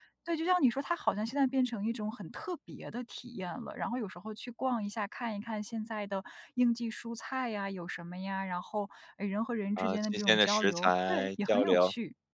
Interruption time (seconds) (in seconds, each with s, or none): 9.8 s